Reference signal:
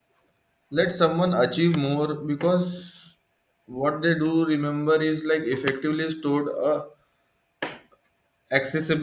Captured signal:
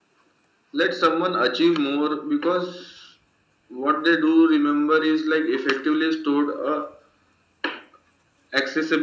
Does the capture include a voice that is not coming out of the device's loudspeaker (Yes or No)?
No